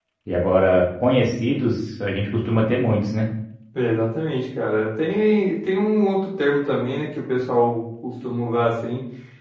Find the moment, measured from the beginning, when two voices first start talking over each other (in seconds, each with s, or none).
none